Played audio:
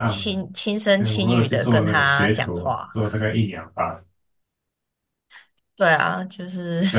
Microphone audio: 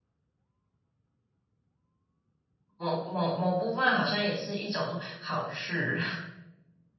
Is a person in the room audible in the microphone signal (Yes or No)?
Yes